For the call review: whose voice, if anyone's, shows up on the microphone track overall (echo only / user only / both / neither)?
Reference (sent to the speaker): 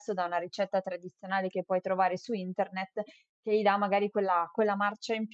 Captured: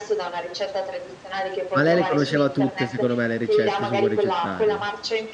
both